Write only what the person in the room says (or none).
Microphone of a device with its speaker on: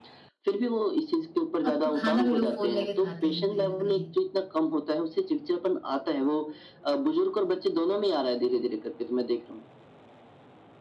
अब तो खाना भी लोग फ़ोन लेके खाते हैं कहीं न कहीं।